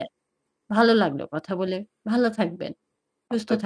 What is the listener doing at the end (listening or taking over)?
taking over